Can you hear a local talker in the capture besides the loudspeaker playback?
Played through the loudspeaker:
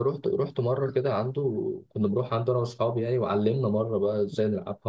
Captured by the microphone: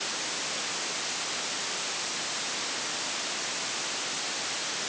No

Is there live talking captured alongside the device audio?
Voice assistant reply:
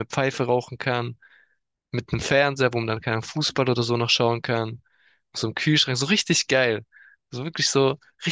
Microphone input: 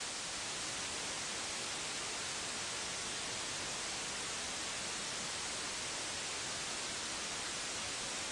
No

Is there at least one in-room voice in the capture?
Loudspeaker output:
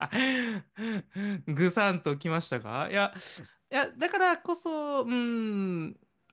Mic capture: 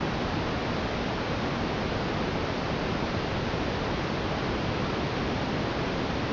No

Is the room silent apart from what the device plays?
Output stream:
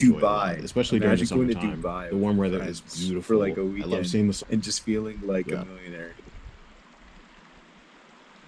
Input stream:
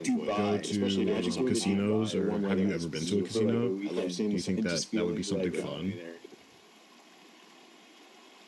No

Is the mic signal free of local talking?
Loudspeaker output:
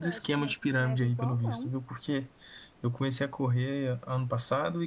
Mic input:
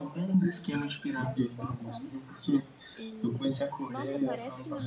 No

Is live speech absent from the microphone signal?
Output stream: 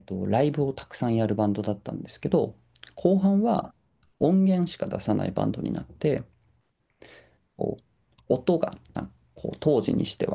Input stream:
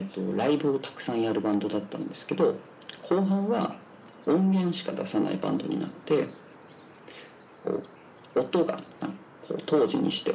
Yes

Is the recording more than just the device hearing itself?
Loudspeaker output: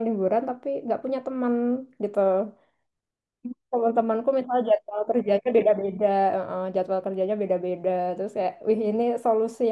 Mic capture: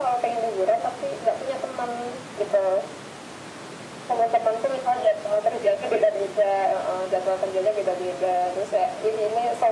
No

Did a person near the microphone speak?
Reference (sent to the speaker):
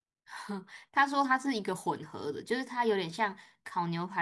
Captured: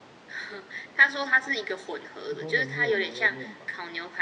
Yes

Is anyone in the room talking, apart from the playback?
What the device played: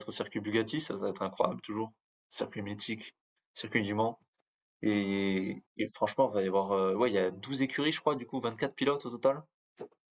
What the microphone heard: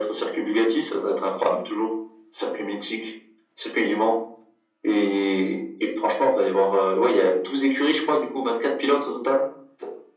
No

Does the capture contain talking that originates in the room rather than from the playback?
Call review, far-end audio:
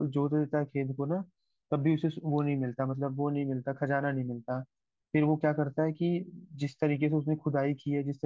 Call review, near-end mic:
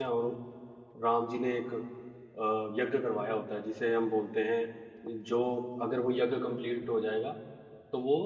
Yes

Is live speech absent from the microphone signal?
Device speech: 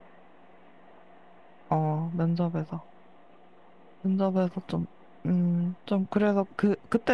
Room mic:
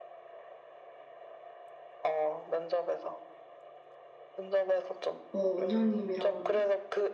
No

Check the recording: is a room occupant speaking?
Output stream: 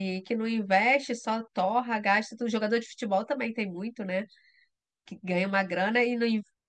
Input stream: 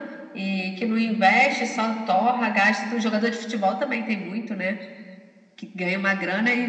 No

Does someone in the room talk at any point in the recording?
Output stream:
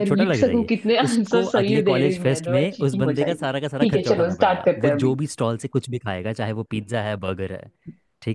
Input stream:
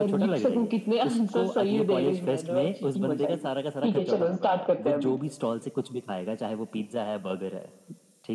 No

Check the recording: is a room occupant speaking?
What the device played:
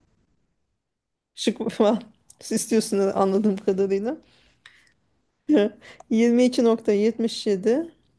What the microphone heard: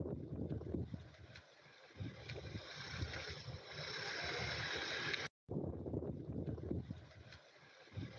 No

